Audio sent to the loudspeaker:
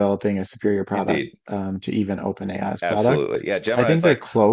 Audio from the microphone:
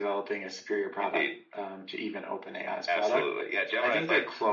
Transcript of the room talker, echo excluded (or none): none